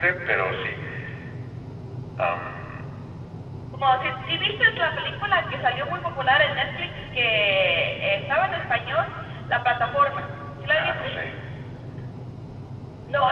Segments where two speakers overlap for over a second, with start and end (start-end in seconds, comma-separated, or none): none